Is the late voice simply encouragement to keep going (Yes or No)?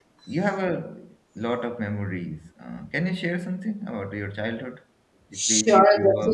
No